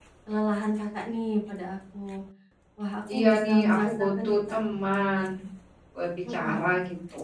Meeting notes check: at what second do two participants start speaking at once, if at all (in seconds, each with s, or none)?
3.1 s